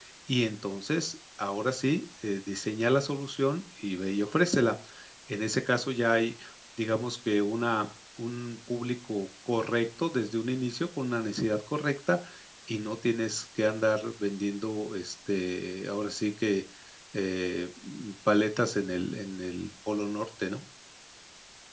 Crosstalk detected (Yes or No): No